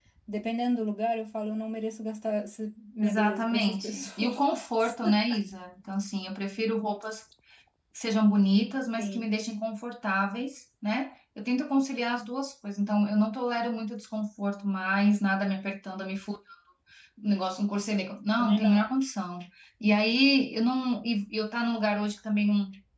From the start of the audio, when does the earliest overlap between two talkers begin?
3.0 s

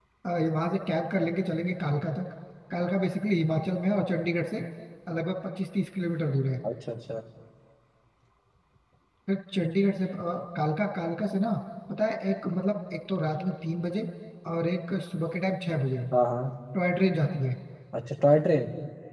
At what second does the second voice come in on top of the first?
none

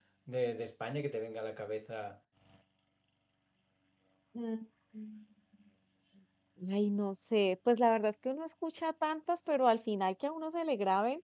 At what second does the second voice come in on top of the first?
none

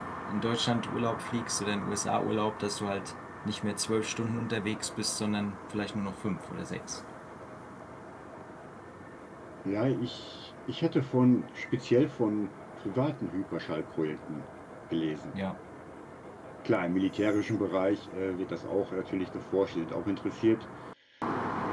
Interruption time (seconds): none

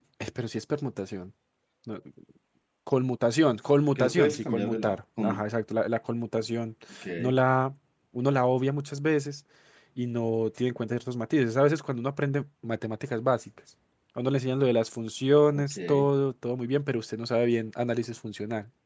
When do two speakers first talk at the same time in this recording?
4.0 s

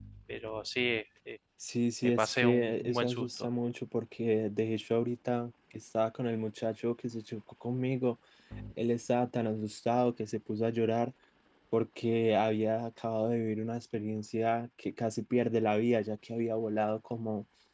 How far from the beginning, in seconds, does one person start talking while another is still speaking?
2.0 s

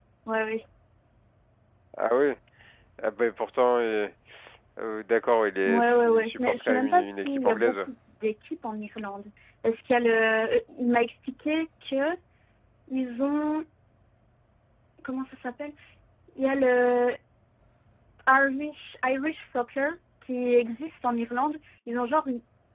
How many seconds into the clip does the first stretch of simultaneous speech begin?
5.7 s

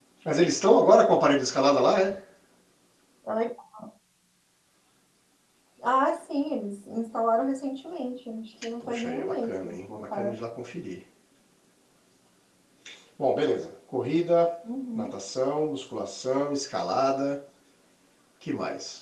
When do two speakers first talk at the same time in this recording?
8.8 s

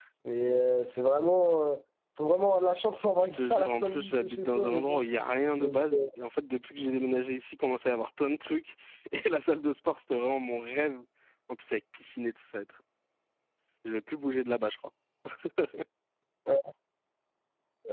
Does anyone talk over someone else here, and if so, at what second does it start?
3.2 s

